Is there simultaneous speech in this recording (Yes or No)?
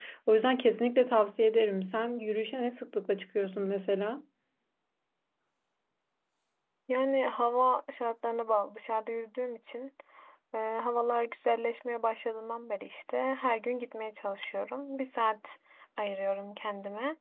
No